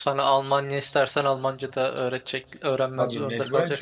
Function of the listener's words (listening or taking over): taking over